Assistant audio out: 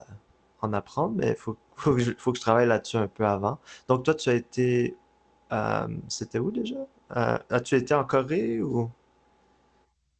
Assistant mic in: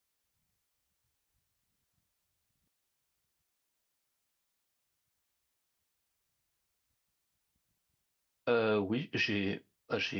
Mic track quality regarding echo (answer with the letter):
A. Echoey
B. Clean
B